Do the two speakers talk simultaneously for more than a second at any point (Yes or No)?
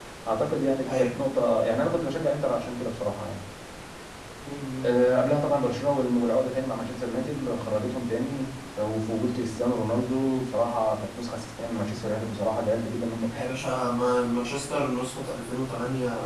No